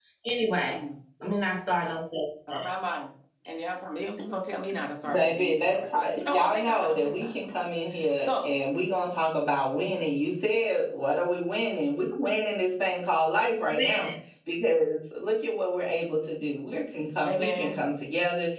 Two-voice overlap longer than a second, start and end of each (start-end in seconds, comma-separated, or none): 5.1-7.6